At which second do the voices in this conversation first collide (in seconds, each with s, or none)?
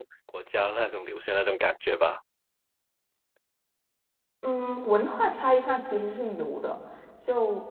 none